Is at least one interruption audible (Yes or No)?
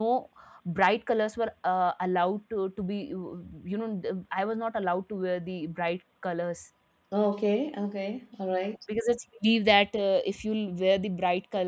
No